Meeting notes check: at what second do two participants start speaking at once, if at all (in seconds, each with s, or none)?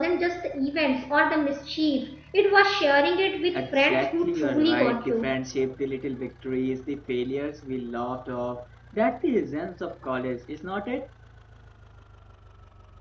3.5 s